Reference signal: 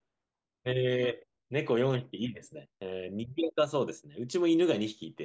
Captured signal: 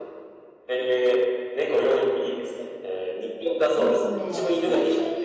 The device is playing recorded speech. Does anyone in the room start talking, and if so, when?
3.8 s

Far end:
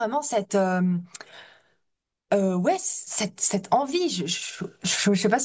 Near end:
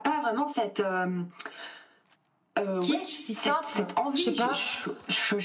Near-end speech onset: 2.8 s

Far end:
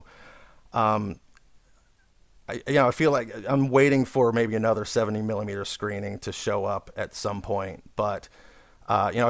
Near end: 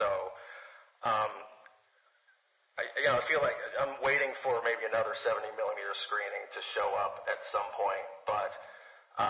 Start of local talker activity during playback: none

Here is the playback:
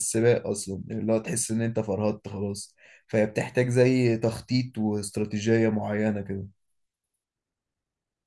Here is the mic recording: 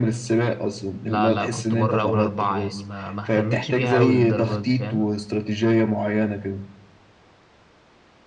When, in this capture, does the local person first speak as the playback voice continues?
1.0 s

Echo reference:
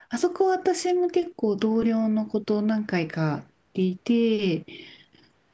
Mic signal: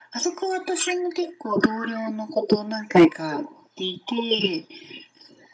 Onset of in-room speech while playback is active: none

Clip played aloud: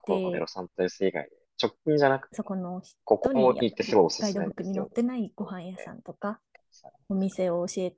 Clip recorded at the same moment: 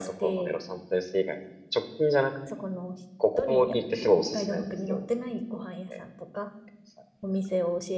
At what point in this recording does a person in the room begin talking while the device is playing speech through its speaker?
none

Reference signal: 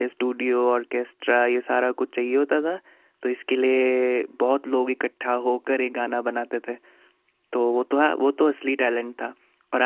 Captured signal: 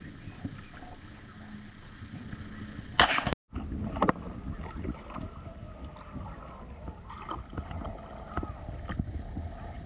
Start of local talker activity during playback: none

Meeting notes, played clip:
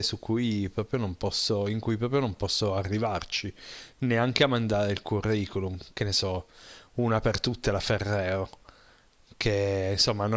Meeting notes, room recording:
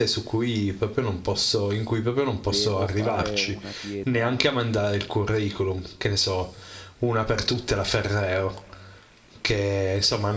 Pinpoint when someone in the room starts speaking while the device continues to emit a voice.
2.4 s

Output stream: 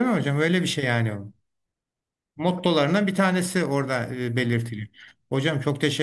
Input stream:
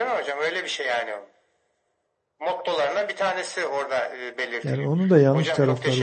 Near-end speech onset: 4.6 s

